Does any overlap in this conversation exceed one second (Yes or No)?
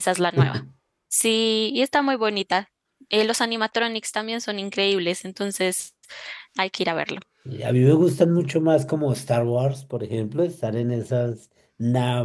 No